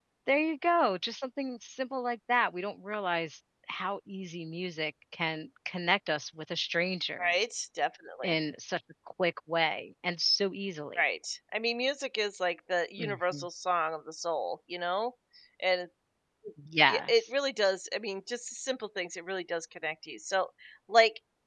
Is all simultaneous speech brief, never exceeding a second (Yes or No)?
Yes